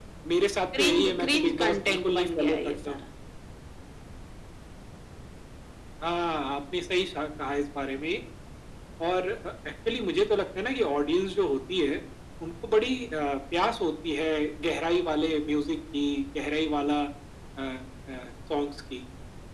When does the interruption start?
1 s

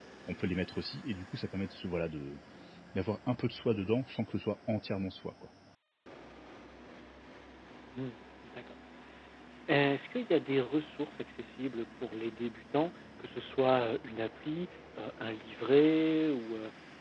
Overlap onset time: none

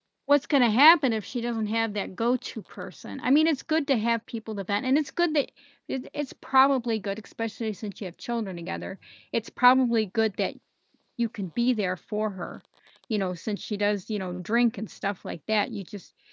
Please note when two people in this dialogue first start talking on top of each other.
none

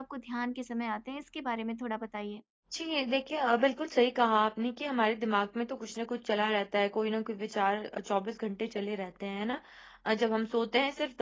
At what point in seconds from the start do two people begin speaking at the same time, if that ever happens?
none

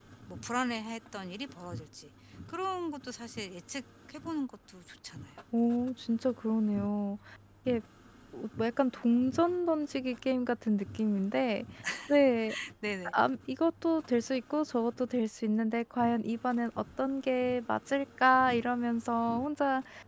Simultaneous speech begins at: none

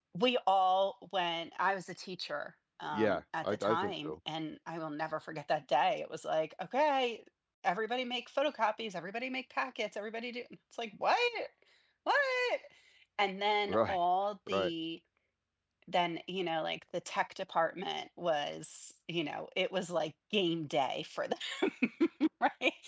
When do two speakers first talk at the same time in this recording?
3 s

